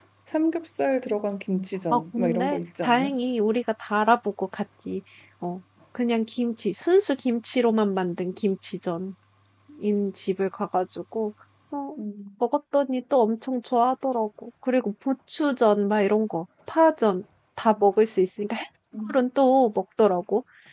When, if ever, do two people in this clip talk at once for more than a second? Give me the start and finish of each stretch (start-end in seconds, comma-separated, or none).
1.9-3.1